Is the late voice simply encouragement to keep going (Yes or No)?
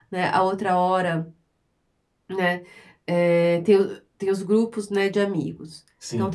Yes